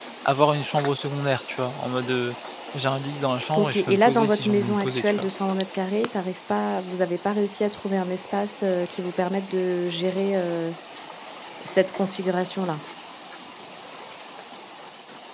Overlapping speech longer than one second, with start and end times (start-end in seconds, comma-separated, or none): 3.6-5.2